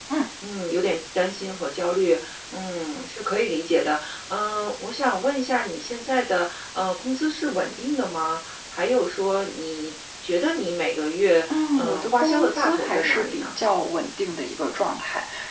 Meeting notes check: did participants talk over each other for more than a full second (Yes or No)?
Yes